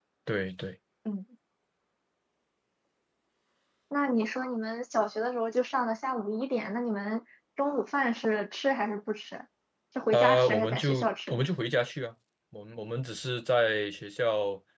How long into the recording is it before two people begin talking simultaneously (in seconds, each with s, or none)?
10.1 s